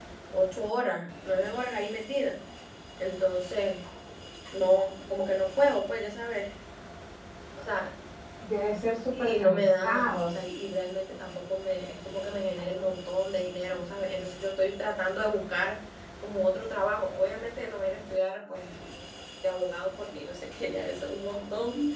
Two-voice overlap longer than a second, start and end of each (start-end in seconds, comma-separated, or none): 9.1-10.3